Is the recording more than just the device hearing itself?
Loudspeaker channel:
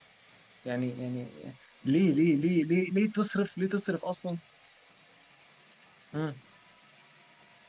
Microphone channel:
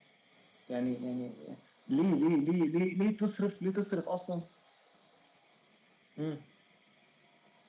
No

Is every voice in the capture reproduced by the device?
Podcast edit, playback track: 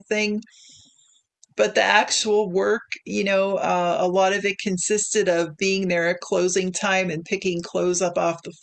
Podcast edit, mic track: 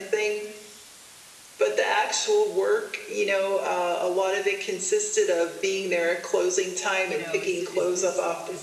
No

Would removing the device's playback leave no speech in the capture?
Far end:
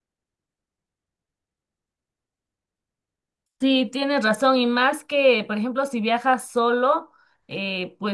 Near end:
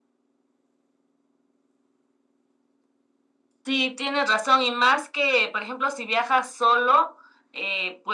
Yes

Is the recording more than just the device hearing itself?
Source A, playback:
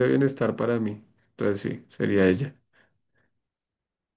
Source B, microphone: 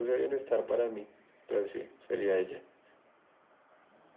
No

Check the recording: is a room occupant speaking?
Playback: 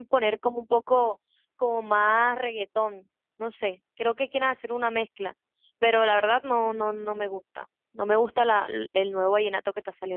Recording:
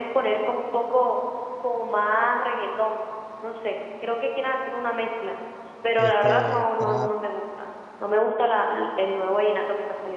Yes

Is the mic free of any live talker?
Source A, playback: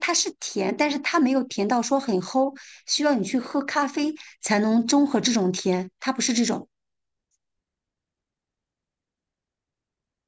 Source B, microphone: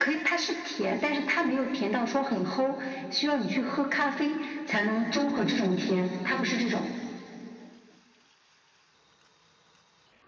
Yes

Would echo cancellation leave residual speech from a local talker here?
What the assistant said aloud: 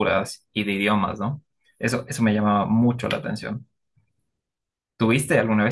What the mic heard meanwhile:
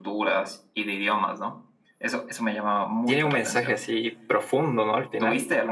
Yes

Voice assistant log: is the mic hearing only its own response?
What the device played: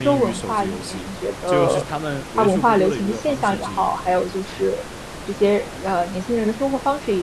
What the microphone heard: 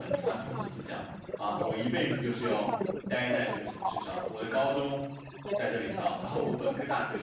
No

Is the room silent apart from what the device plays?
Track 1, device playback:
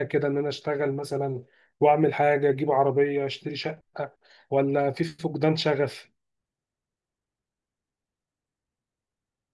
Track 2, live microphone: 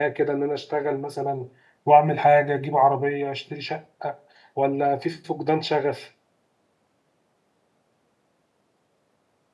Yes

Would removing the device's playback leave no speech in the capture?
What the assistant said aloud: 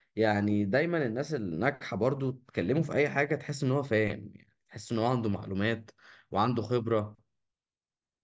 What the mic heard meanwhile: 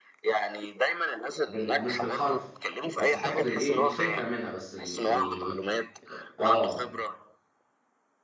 No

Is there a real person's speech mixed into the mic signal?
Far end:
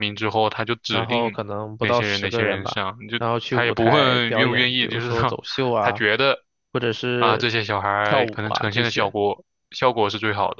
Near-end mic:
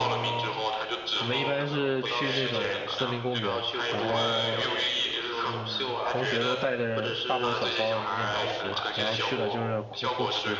Yes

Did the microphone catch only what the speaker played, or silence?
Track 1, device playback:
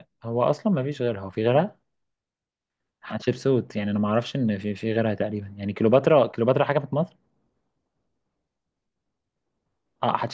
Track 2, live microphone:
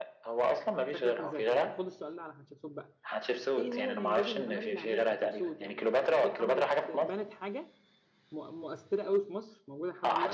No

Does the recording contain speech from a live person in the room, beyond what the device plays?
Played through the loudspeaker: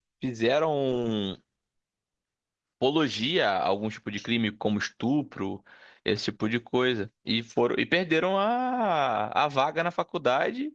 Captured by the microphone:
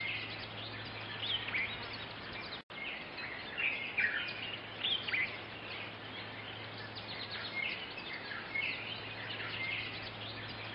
No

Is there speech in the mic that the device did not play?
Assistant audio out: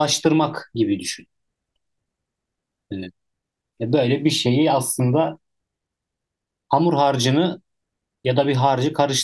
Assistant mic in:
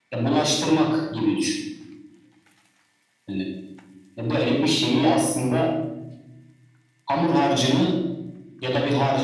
No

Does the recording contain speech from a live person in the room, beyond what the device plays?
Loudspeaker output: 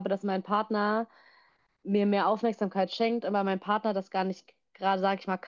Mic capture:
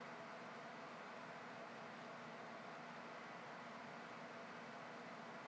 No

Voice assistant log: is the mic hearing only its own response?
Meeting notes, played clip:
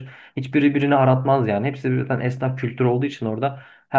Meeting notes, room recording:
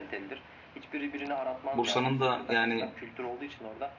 No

